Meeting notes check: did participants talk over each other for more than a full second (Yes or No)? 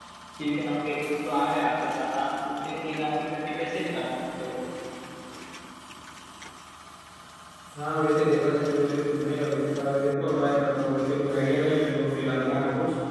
No